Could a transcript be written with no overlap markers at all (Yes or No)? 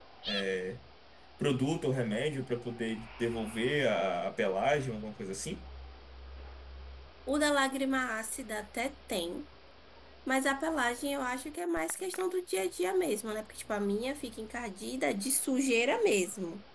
Yes